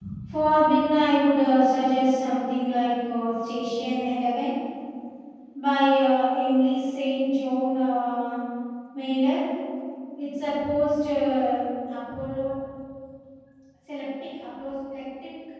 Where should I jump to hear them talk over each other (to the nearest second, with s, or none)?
none